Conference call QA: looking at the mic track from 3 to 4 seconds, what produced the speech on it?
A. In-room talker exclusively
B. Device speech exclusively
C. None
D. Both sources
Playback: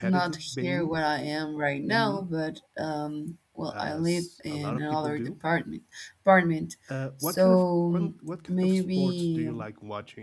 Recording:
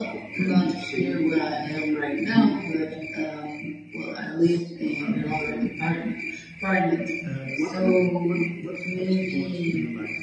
B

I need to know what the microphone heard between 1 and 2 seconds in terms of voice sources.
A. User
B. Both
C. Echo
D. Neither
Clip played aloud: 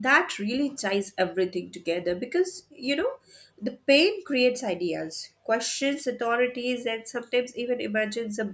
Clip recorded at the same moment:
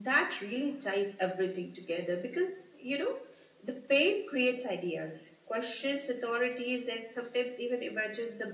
C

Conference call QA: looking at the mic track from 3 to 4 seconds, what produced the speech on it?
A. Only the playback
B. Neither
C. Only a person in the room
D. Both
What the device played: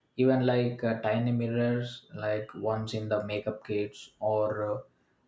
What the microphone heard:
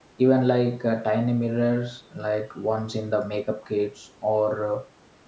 A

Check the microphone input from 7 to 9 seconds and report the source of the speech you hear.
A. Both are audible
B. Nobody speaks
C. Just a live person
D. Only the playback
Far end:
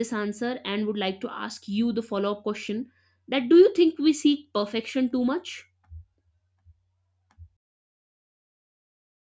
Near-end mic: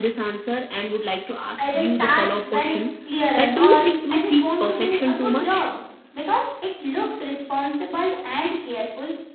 C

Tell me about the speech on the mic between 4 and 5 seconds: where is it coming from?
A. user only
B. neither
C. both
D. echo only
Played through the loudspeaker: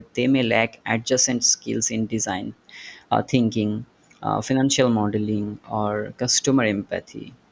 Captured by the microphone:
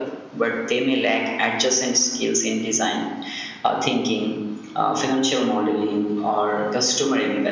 D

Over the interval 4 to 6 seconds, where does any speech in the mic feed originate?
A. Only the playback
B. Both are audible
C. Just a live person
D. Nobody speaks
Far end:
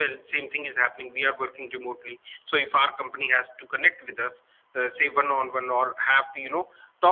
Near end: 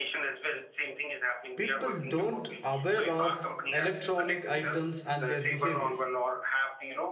B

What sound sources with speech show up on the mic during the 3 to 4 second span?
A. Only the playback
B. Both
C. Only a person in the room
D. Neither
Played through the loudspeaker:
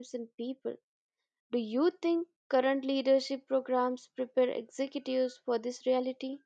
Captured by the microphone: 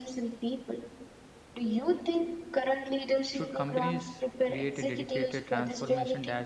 B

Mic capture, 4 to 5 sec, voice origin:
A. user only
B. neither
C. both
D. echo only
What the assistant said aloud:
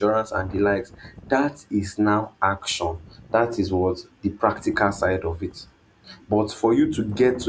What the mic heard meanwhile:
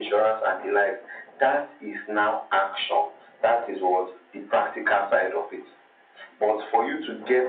D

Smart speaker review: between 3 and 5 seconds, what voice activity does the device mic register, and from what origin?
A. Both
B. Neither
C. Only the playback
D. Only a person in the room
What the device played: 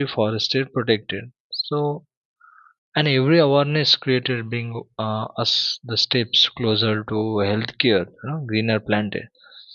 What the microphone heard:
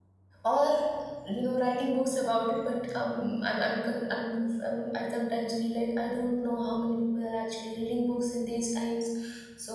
D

